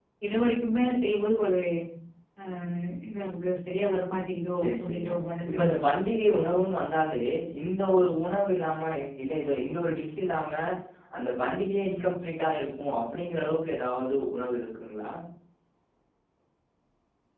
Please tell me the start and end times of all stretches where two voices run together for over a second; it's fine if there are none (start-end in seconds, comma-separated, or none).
none